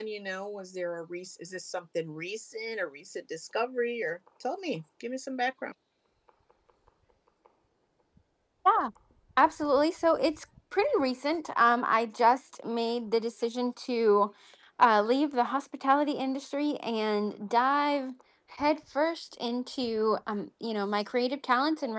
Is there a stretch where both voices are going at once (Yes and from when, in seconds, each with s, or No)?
No